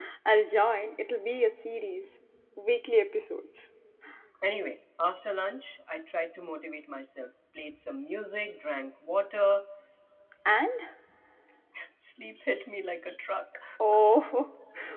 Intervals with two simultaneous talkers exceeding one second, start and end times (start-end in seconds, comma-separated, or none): none